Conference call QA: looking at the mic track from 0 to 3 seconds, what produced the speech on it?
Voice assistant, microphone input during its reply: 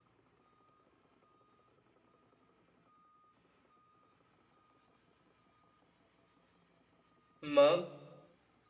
neither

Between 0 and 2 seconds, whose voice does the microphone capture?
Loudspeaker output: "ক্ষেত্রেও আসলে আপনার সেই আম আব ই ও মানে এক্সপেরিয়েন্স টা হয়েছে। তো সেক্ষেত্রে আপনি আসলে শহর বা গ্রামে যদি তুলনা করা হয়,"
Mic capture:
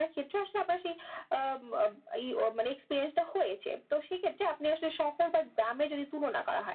echo only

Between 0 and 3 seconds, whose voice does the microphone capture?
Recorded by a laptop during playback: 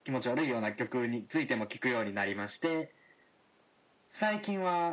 echo only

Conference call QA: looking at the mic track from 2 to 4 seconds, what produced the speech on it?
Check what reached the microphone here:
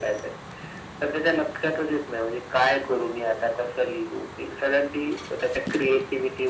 echo only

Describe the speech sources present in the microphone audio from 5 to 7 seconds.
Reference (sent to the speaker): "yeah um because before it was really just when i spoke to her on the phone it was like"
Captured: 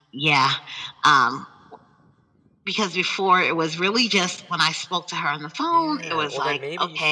both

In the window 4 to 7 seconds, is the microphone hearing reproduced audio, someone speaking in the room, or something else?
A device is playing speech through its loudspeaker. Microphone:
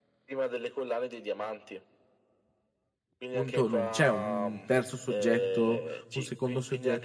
both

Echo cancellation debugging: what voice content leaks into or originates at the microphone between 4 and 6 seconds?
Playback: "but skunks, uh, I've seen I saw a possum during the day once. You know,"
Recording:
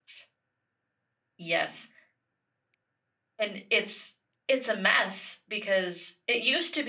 user only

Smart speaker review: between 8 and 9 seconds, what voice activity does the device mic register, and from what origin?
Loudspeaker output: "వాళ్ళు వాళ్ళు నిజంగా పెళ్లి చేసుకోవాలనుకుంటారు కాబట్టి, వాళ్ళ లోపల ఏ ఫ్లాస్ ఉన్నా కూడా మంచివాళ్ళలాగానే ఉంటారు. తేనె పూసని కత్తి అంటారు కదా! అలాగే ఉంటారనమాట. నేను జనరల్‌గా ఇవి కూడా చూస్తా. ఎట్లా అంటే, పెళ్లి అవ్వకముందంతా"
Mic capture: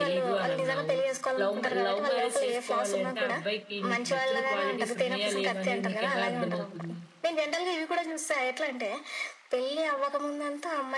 echo only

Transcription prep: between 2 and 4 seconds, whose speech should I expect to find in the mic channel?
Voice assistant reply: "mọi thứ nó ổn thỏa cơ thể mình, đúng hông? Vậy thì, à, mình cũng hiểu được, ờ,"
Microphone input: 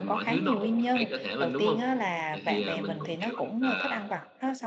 both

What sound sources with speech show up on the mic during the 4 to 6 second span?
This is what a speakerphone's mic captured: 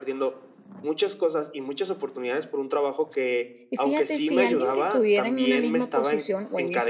both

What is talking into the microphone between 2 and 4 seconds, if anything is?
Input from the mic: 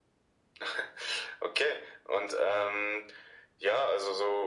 echo only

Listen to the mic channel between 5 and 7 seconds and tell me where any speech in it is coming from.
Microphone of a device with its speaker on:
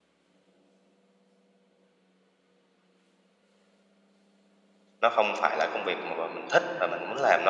user only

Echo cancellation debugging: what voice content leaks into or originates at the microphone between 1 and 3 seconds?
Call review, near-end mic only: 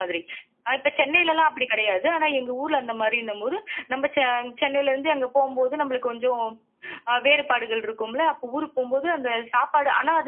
echo only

